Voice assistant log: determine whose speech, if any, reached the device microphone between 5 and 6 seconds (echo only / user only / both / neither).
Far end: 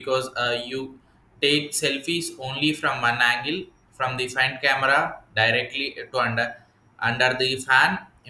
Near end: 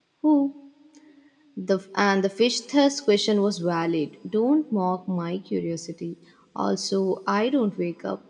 user only